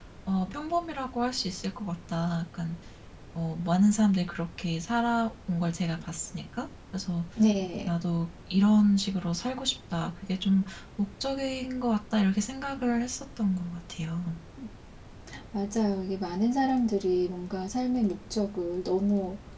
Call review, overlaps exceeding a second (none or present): none